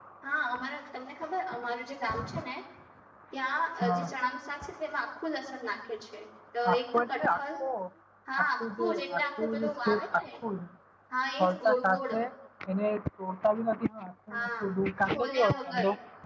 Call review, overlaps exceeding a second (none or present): present